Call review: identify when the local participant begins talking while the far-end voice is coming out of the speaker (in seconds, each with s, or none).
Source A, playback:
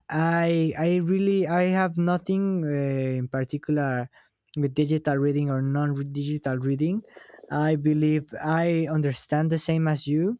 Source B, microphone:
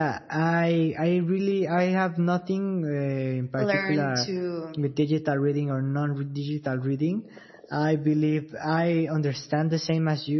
3.6 s